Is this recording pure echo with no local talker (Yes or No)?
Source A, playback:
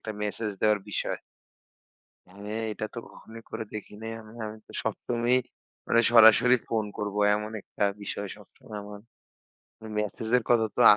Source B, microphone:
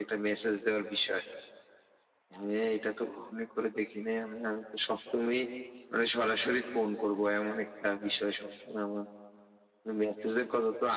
Yes